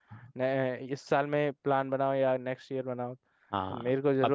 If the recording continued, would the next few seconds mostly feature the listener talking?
Yes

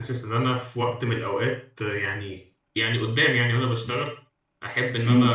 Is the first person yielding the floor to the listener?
No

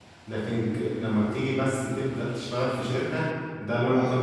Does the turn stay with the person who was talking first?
Yes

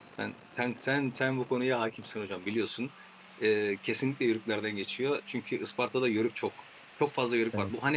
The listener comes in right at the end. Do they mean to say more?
No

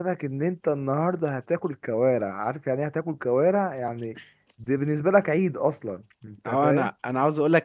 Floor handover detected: Yes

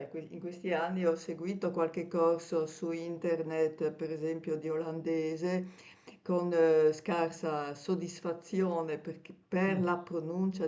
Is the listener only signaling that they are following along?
Yes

